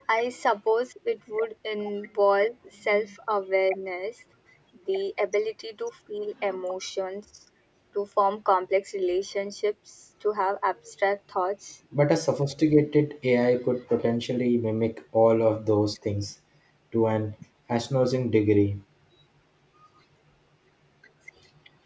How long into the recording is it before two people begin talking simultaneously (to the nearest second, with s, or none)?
none